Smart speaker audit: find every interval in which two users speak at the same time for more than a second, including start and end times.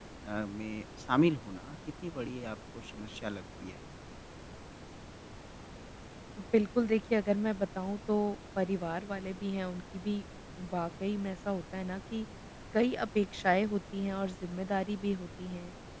none

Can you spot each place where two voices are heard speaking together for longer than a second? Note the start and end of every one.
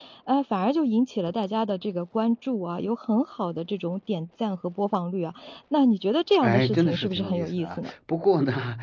6.4-7.9

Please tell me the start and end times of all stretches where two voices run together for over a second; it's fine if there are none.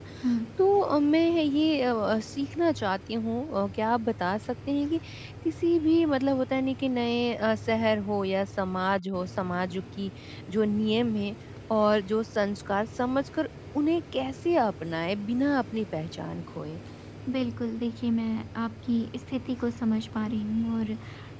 none

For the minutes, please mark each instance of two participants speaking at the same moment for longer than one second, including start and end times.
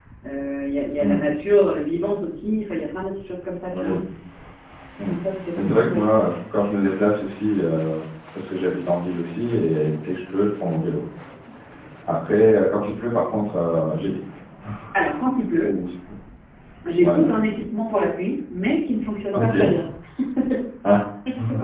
none

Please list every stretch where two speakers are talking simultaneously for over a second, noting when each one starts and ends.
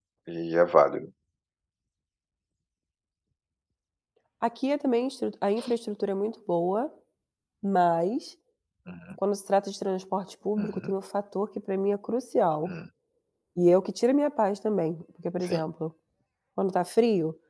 none

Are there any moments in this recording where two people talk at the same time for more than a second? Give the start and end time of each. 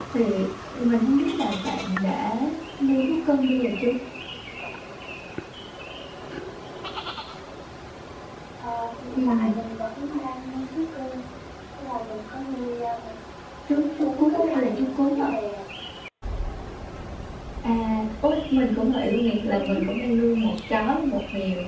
13.8-15.3

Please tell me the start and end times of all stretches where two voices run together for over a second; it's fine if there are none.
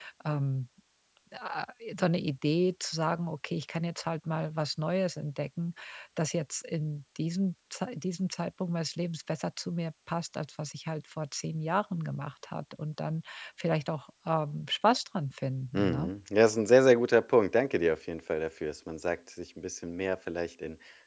none

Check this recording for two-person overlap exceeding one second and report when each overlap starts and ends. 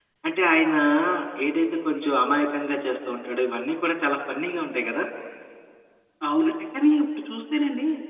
none

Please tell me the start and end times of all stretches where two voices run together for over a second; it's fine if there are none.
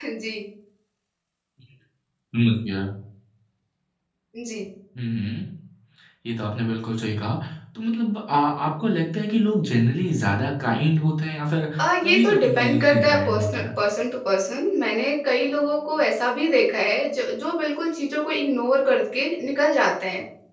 11.8-13.7

